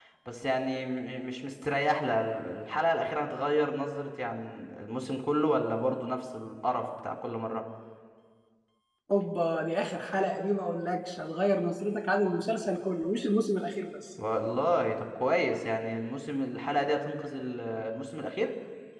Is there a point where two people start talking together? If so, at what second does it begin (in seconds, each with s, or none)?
none